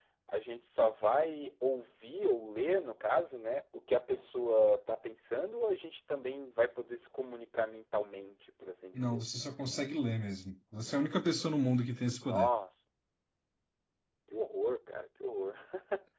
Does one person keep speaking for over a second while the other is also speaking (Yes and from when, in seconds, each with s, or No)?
No